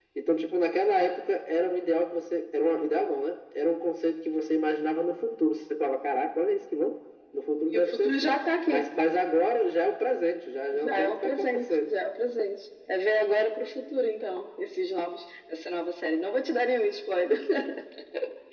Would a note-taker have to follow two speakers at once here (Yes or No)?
Yes